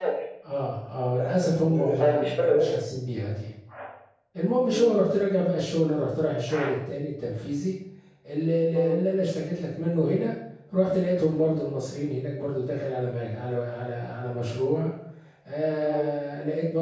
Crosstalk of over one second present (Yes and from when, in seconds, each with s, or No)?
Yes, from 1.2 s